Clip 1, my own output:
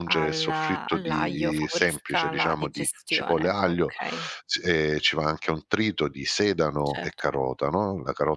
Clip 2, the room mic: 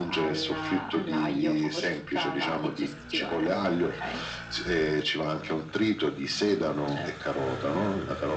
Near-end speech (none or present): none